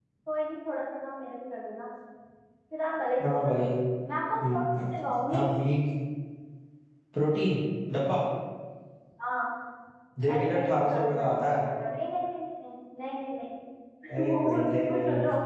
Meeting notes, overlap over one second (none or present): present